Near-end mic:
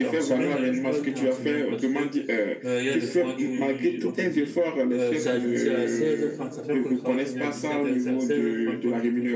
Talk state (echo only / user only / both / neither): both